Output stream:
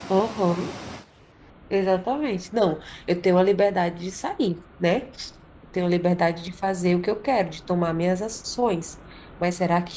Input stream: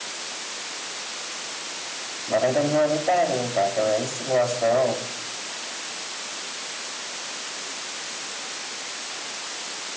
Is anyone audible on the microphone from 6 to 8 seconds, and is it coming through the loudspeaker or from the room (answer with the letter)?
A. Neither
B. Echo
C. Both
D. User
A